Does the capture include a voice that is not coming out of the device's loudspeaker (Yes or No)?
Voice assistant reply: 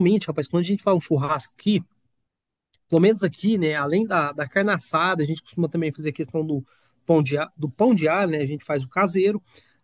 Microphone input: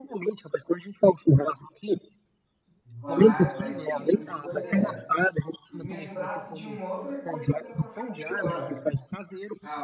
Yes